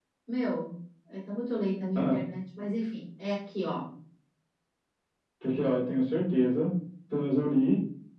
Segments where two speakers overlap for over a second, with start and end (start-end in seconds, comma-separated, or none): none